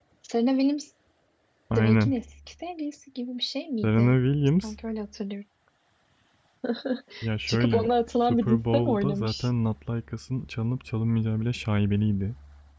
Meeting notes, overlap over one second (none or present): present